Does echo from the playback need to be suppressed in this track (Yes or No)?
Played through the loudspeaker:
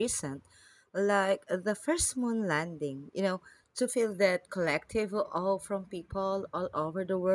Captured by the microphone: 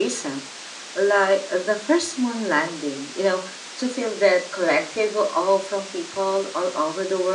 Yes